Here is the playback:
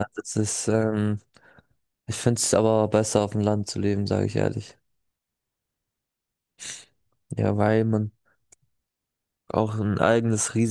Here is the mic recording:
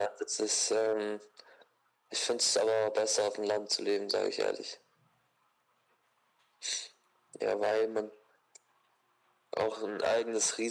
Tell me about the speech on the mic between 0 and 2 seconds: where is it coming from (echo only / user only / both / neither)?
echo only